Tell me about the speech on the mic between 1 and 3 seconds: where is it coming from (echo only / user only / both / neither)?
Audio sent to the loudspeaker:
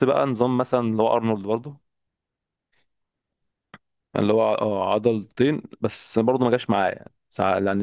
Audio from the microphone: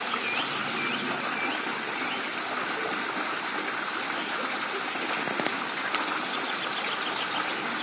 neither